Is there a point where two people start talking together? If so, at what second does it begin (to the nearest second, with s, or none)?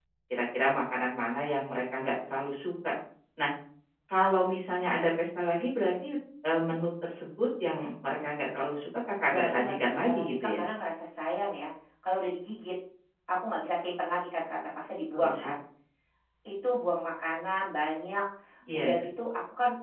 9 s